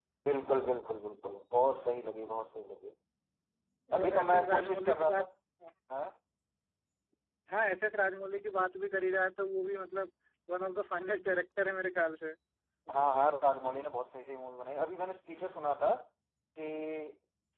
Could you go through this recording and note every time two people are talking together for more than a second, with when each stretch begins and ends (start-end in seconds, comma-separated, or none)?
3.9-5.2